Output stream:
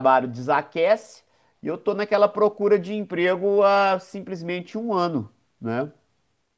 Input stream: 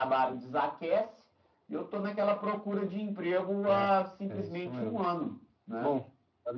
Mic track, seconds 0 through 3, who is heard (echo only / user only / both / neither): echo only